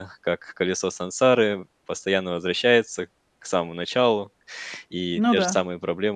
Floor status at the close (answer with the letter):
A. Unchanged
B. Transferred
A